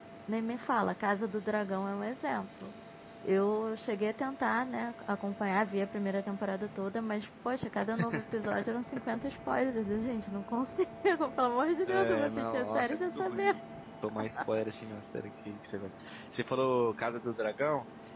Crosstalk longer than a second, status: present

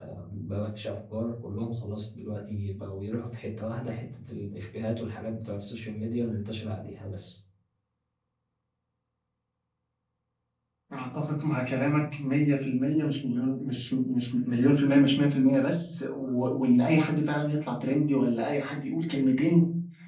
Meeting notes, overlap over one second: none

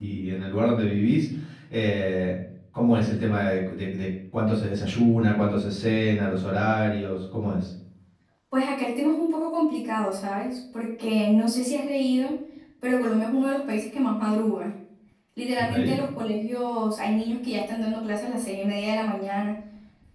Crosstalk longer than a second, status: none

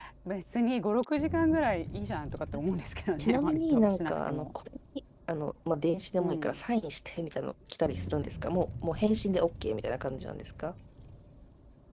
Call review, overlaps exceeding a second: present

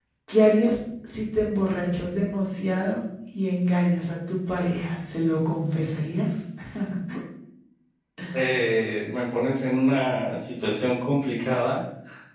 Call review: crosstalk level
none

